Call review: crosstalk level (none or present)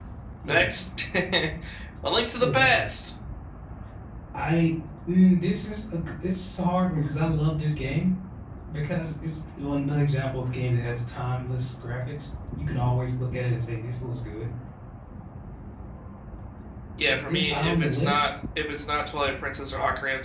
present